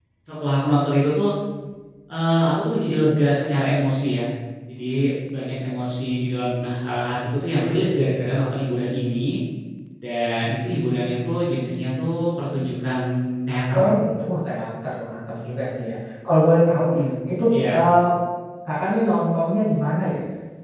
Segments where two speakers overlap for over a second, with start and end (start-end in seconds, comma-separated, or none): none